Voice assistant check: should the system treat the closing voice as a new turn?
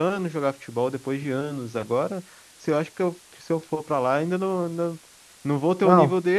No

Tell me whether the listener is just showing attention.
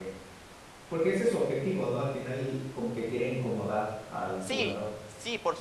No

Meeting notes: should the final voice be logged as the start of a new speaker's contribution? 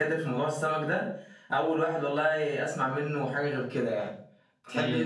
Yes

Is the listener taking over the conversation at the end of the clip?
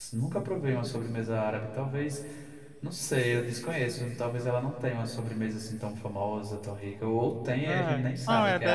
Yes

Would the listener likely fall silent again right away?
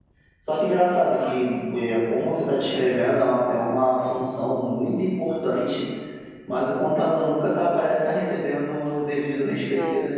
Yes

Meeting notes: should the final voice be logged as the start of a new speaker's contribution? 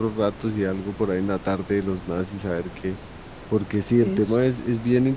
No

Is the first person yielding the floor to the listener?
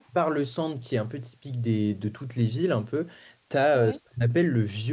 No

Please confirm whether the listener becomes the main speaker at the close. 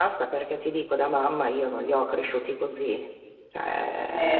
Yes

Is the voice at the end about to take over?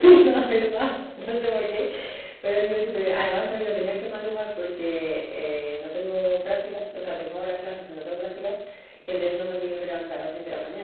No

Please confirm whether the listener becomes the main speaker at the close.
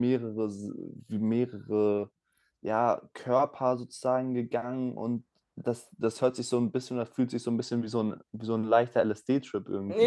Yes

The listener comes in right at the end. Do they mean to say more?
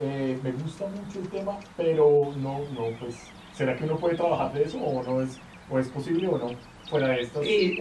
Yes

